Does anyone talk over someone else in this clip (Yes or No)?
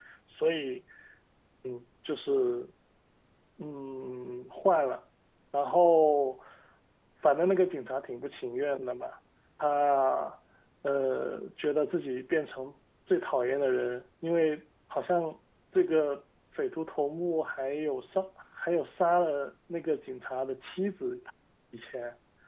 No